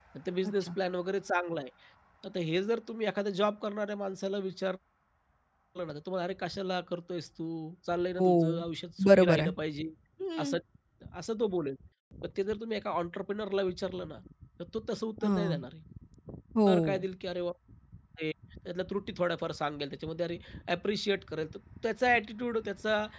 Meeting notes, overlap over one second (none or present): none